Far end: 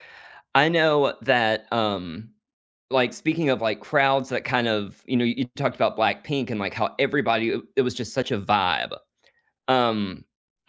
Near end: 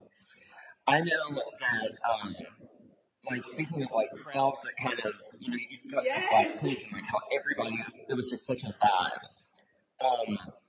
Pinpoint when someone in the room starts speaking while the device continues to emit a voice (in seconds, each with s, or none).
5.9 s